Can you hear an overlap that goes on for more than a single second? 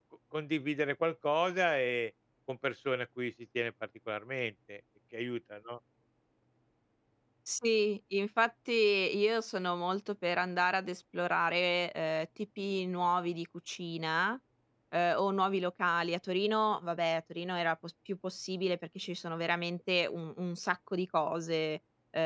No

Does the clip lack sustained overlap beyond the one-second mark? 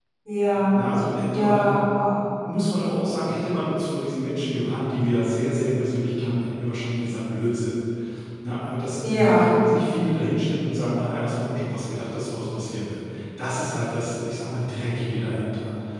Yes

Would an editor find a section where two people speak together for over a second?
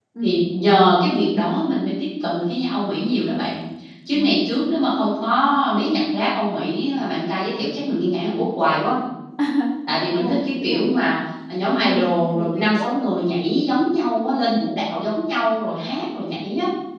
Yes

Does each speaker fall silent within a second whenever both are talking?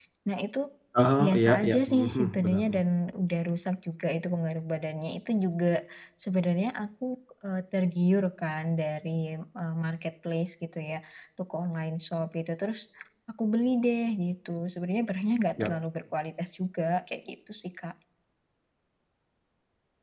No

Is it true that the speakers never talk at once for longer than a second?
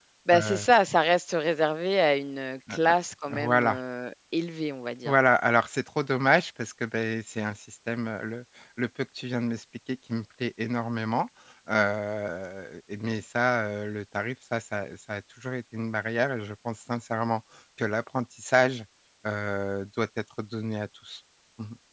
Yes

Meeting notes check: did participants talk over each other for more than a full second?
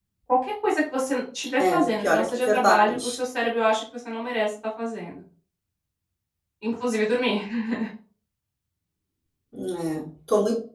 Yes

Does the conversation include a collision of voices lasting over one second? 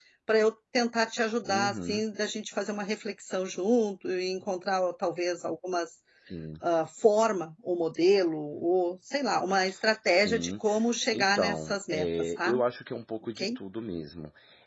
Yes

